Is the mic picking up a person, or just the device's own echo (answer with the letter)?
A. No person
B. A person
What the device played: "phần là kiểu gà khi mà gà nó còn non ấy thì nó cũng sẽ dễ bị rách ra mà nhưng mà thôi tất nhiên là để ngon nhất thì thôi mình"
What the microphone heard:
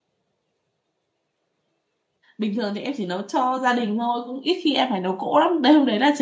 B